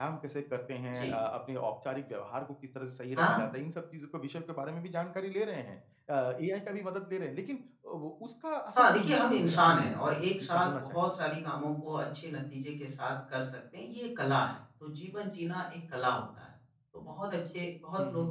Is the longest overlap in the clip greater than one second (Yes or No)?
Yes